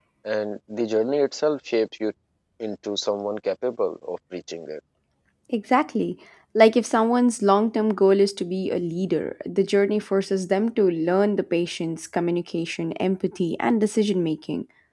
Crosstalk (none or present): none